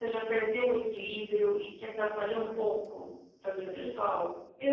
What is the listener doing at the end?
taking over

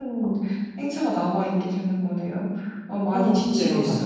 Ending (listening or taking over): taking over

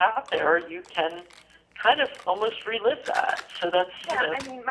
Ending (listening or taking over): taking over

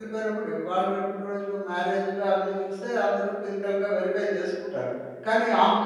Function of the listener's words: listening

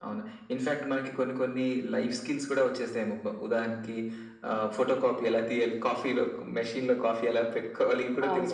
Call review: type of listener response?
taking over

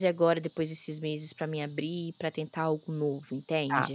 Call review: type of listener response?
taking over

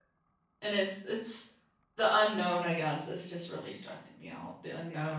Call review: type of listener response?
listening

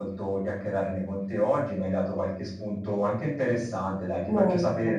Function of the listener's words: listening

